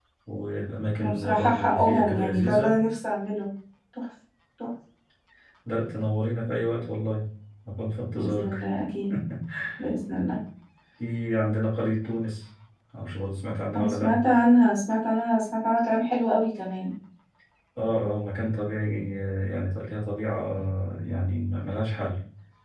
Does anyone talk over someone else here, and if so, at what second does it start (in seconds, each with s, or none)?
1.0 s